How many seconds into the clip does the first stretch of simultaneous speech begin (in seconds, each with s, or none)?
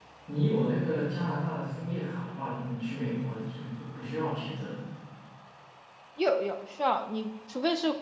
none